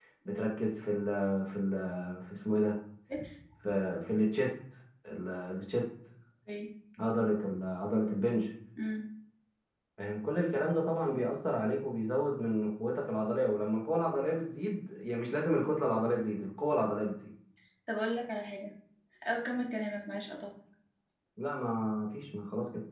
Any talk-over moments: No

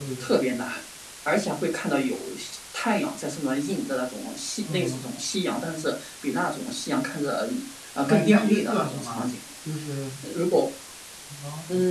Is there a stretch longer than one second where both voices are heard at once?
Yes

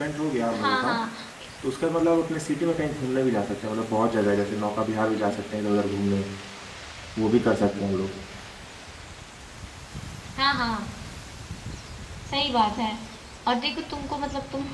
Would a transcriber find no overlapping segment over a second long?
Yes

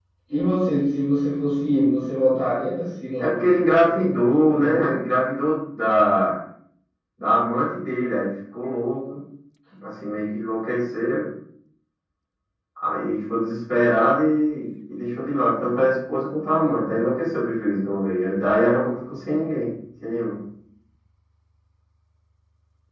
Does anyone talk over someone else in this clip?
Yes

